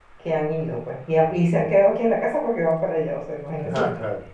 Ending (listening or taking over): listening